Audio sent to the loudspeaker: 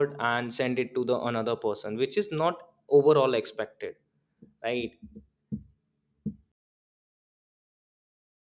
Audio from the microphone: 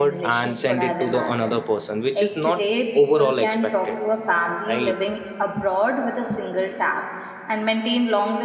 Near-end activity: present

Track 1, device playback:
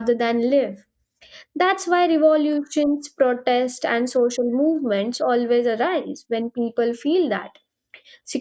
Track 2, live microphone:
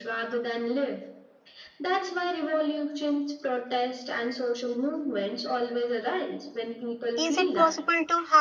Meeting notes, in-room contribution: present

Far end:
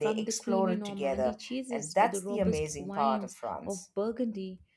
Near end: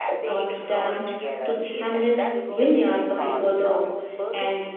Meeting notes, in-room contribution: present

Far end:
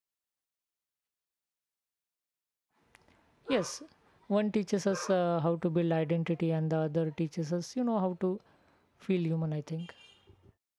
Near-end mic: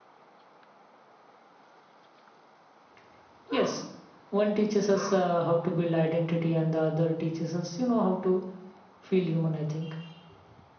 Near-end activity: none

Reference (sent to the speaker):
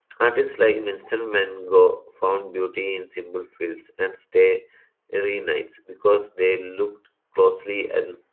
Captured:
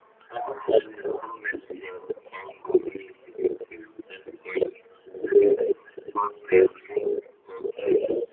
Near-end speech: none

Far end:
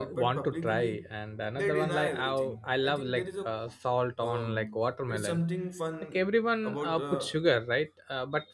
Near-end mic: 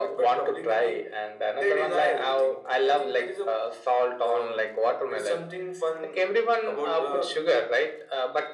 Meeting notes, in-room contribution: none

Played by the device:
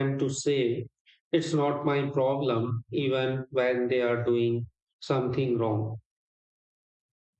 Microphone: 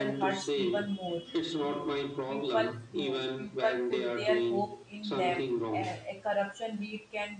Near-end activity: present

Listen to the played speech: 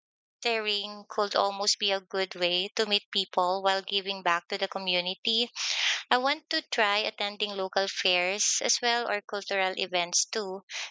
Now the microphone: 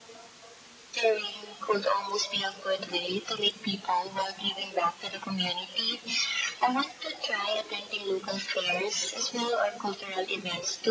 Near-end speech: none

